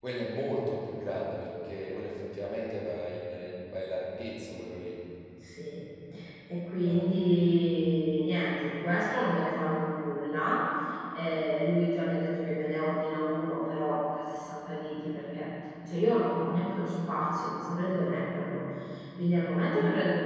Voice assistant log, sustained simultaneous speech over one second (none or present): none